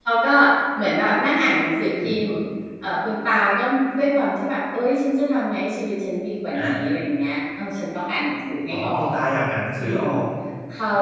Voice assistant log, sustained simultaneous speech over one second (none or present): none